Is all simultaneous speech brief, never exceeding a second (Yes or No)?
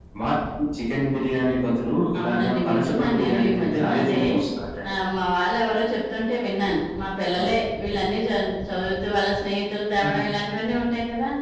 No